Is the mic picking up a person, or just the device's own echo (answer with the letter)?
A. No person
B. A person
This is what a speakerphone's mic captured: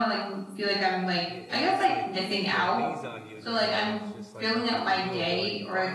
B